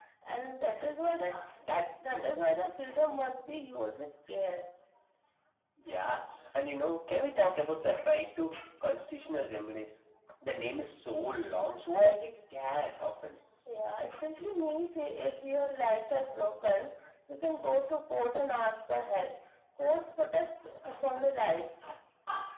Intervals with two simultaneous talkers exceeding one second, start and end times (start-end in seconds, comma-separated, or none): none